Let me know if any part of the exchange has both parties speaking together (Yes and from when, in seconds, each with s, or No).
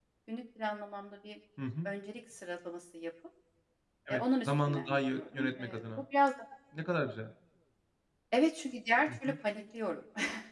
Yes, from 4.1 s